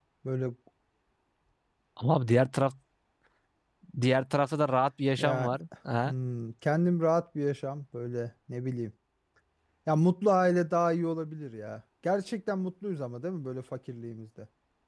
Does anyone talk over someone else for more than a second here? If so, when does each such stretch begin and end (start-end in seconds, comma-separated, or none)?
none